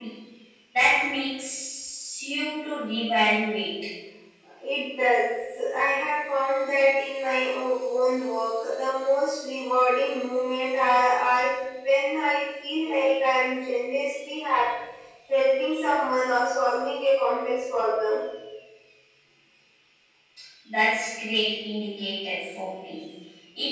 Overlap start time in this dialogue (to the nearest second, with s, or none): none